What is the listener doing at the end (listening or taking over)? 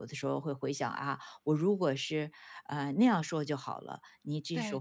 listening